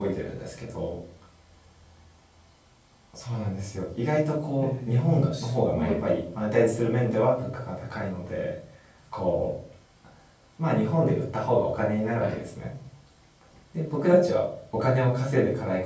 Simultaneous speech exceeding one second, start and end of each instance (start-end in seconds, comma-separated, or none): 4.6-6.0